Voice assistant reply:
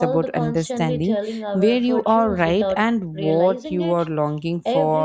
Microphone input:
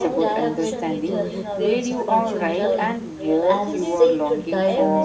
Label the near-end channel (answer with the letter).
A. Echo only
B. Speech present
B